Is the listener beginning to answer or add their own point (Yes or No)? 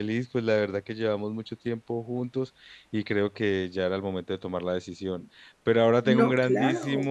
No